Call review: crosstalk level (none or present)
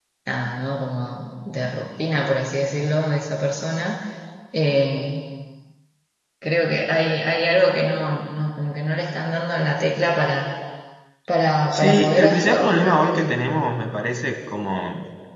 present